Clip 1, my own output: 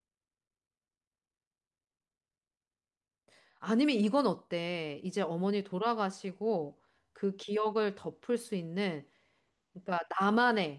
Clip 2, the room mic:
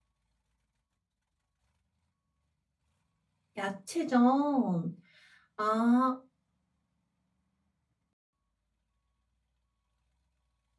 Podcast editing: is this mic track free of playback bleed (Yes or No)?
Yes